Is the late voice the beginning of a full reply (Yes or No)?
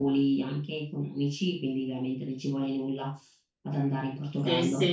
Yes